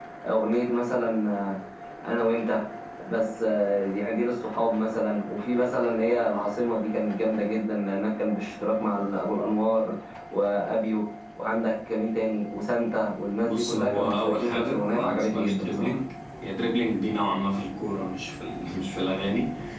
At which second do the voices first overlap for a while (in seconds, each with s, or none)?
13.4 s